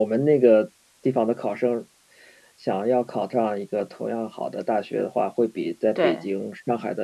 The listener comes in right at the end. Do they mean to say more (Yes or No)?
No